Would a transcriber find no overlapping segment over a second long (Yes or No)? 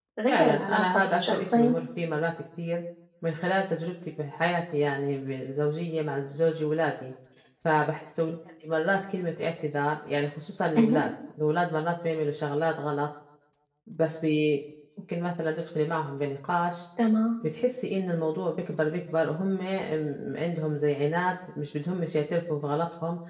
No